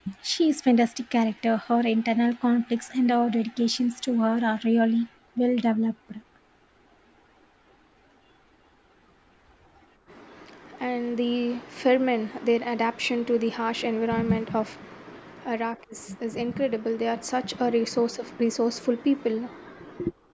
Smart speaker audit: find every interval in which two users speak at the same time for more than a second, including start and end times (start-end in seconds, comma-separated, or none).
none